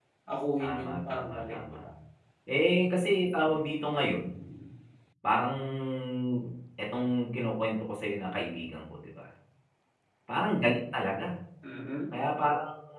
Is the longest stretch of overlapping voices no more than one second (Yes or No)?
No